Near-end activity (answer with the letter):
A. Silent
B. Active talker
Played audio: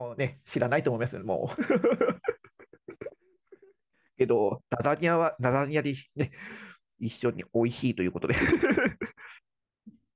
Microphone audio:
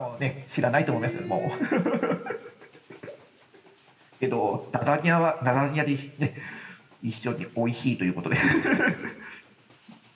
B